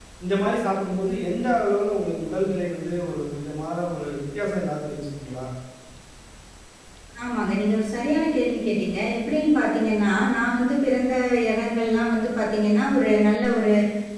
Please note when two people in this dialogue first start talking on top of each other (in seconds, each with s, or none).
none